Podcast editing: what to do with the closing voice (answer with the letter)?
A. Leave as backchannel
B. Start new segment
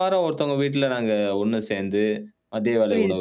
A